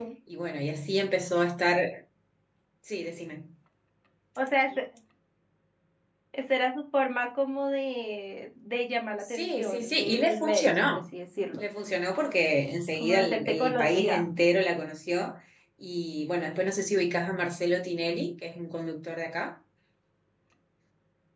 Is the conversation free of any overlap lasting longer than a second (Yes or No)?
No